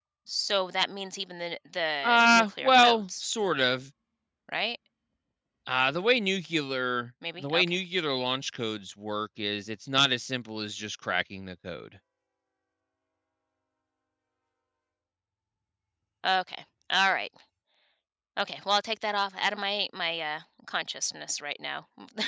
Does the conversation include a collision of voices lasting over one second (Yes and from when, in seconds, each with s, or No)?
Yes, from 2.0 s